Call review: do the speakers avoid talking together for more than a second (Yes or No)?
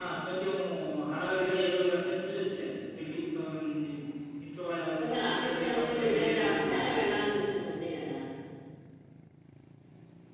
No